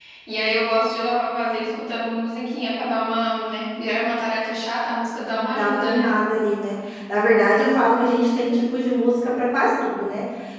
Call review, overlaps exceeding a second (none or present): none